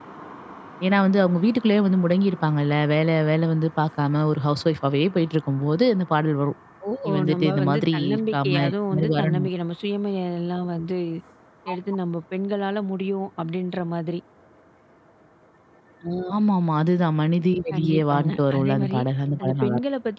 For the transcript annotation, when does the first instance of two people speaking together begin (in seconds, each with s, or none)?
7.3 s